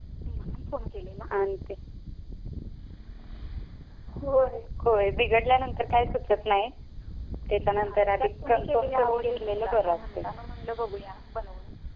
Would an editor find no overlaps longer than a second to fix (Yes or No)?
No